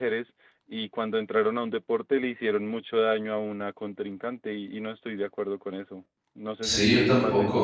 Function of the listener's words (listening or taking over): taking over